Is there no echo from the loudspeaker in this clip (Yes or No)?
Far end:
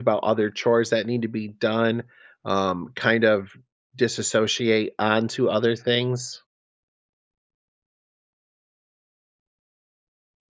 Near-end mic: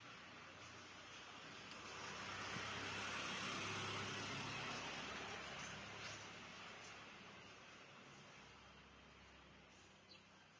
Yes